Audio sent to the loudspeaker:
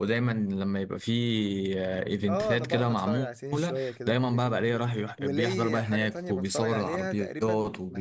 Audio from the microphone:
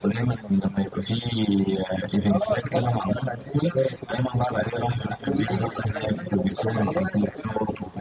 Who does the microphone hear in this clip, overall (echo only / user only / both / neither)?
both